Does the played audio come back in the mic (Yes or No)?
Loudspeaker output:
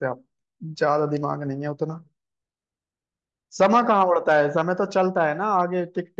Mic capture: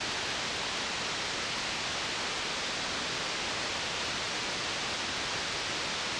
No